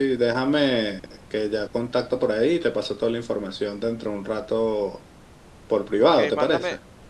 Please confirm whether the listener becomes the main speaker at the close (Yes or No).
Yes